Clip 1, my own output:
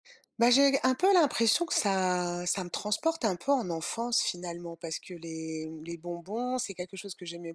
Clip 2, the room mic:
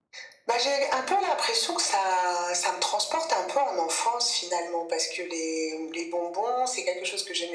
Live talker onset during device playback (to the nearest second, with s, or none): none